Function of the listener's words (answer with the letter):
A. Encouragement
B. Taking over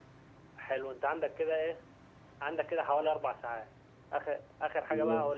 A